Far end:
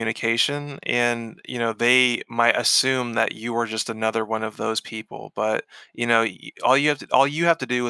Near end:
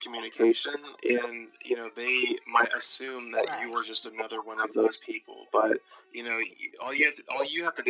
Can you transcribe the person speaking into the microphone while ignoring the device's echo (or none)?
Right.